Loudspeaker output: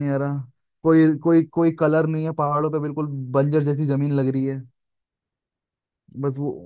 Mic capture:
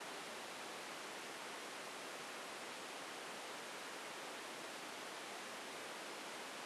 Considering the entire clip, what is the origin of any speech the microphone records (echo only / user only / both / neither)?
neither